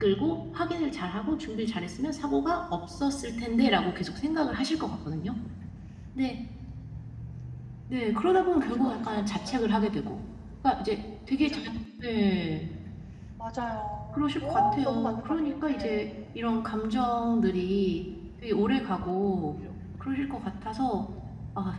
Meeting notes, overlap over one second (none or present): present